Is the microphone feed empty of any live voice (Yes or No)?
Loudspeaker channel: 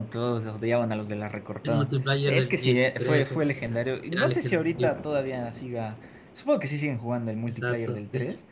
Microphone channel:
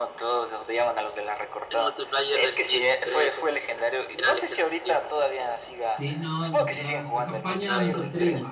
No